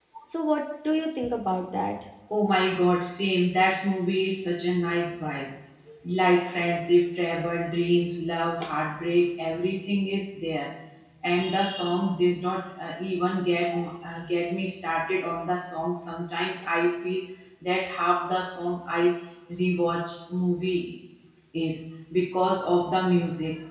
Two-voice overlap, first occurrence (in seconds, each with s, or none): none